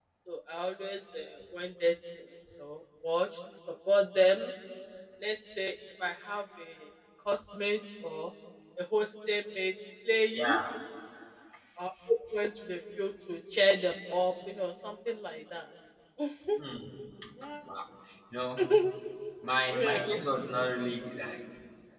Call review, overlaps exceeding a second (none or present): none